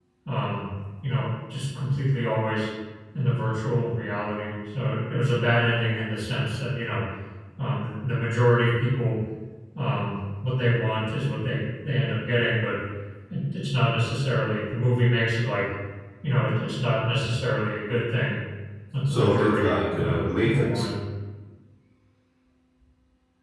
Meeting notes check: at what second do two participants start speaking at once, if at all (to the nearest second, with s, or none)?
19 s